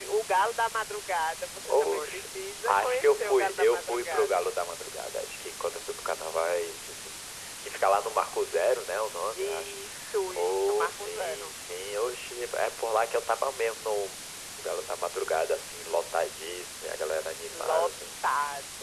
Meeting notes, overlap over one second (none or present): present